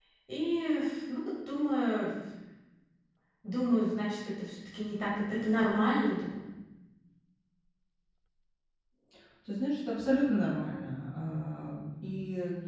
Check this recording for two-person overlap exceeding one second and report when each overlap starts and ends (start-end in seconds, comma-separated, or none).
none